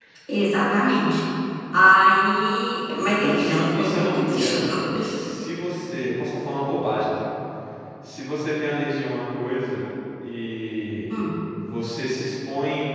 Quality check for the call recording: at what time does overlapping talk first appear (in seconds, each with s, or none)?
3.2 s